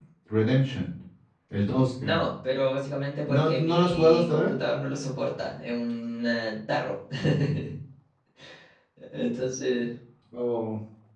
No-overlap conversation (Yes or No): No